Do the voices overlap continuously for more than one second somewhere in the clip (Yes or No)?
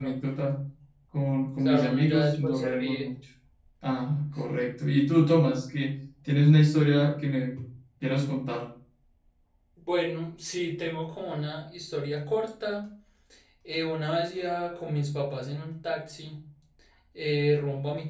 Yes